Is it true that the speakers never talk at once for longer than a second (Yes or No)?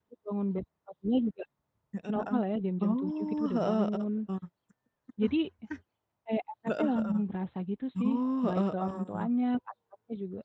No